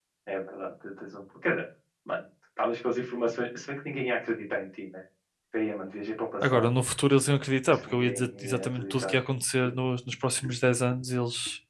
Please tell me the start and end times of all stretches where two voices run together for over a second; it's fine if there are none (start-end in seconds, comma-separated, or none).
7.7-9.2